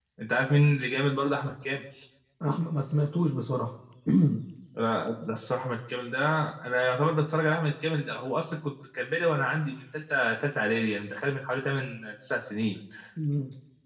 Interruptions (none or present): none